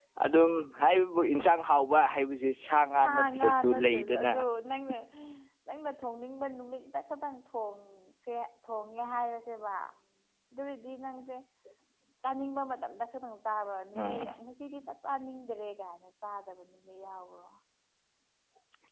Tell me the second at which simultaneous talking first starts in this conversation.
3.0 s

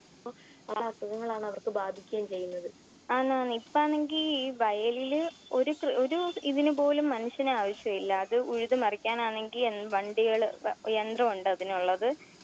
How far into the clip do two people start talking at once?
none

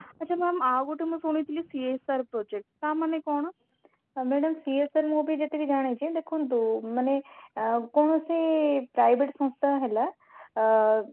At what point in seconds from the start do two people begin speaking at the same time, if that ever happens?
none

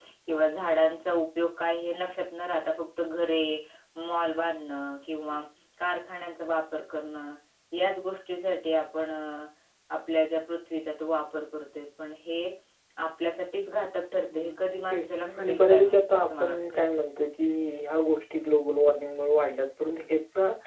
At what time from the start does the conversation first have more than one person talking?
14.3 s

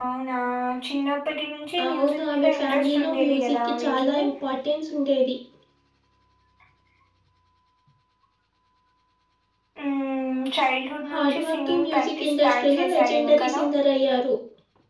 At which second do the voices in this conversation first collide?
1.9 s

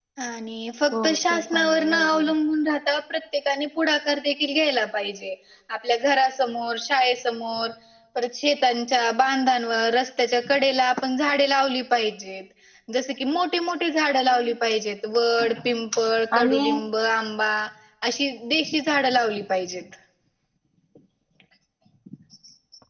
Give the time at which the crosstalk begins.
1.0 s

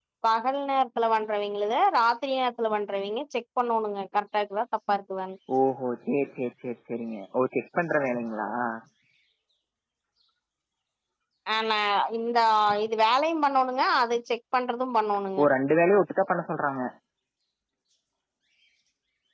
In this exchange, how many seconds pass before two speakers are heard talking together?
none

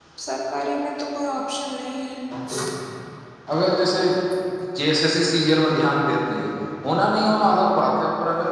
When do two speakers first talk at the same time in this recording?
none

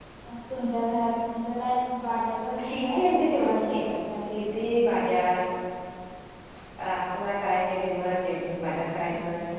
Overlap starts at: 2.6 s

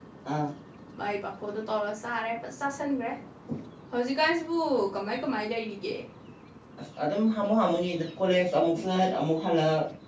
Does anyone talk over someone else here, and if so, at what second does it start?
none

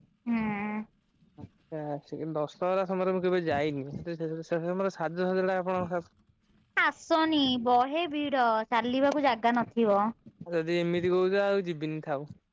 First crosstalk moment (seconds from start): none

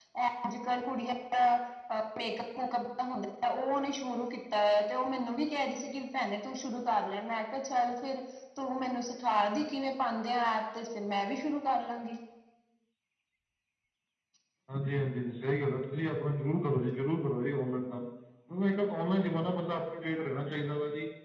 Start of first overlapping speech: none

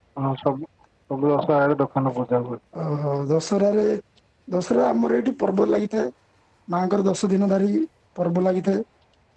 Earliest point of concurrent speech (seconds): none

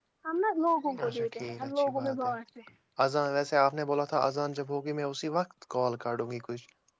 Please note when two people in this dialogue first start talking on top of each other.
1.1 s

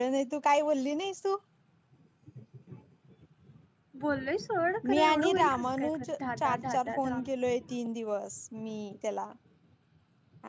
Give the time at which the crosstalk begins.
4.9 s

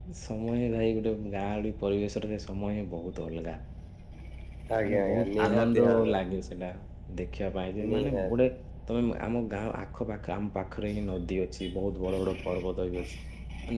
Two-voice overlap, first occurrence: 4.8 s

